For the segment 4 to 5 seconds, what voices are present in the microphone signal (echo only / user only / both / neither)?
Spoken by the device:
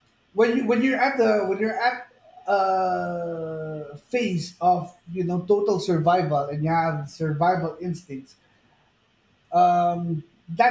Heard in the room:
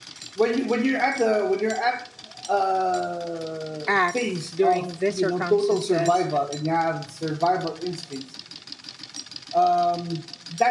both